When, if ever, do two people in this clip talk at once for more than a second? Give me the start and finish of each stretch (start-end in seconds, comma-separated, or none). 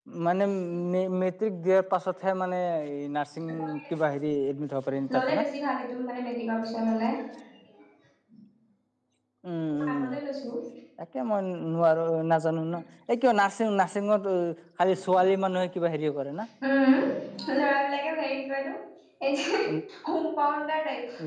none